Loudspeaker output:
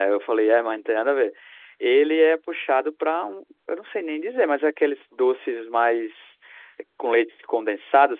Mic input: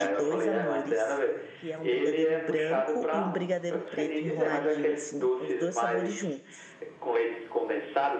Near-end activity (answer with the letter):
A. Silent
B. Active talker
B